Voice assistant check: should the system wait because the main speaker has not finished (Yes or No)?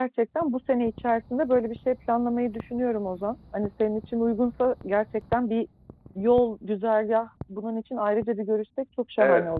No